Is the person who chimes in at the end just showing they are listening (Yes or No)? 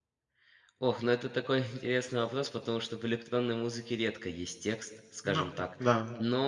Yes